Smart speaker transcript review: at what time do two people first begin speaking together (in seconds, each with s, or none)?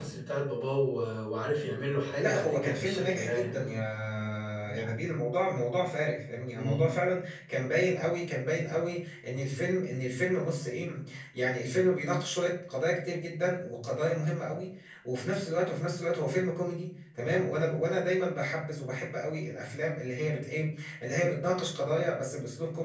2.1 s